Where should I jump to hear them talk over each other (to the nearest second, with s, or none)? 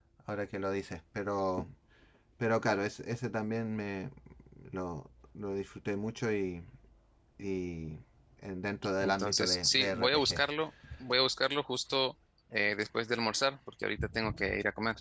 9 s